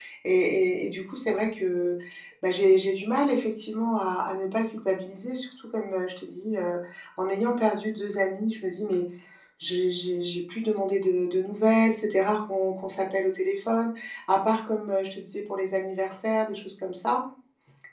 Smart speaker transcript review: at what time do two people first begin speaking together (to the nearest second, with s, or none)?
none